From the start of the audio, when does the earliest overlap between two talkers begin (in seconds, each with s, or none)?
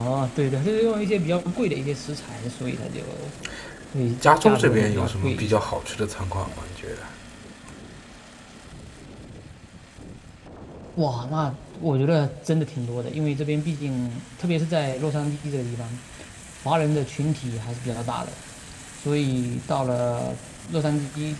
4.4 s